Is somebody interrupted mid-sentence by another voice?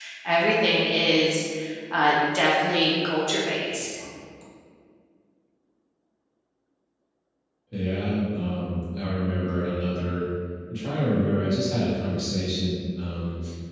No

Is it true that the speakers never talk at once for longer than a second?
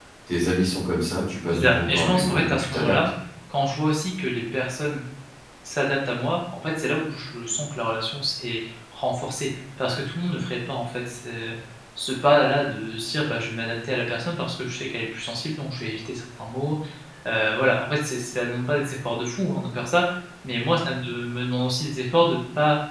No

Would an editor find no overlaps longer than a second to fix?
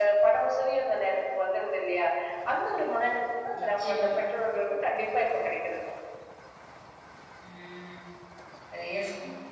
Yes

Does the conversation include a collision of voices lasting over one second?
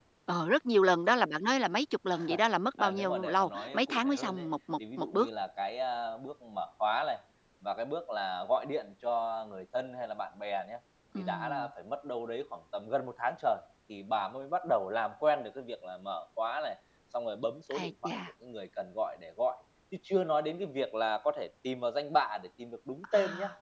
Yes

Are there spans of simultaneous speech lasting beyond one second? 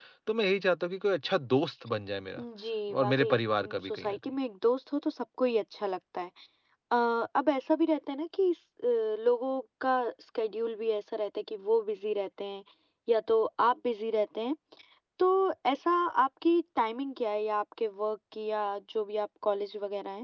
Yes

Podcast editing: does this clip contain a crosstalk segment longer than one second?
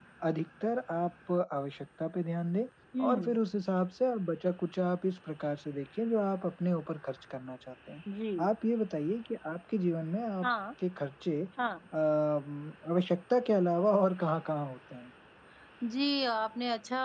No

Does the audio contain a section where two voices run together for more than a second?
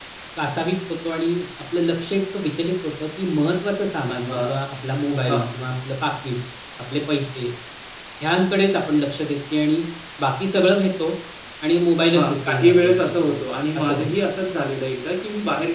Yes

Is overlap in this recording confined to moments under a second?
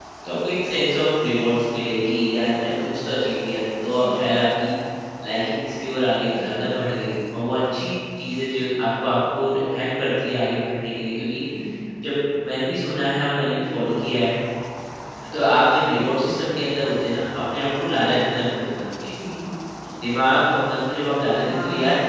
Yes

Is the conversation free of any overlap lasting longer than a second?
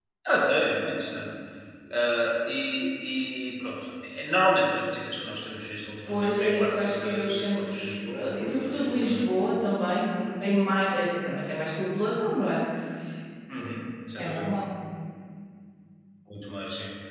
No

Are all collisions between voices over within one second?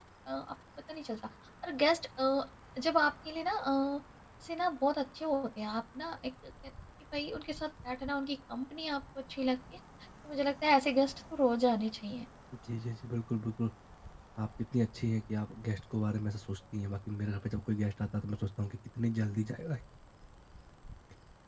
Yes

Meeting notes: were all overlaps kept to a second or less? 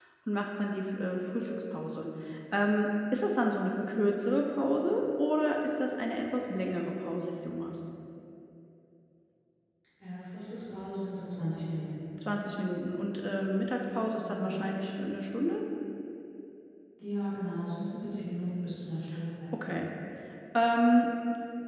Yes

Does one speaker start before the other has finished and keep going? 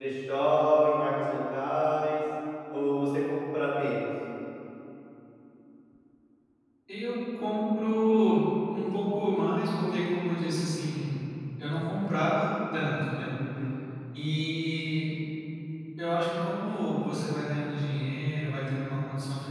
No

